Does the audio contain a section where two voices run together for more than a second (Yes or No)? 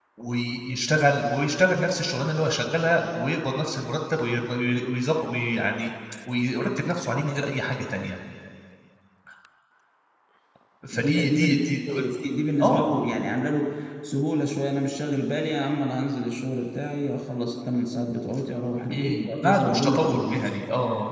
Yes